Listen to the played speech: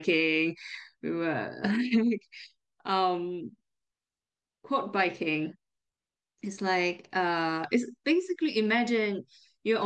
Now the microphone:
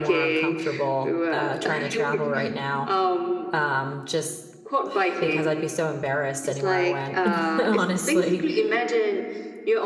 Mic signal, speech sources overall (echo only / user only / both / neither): both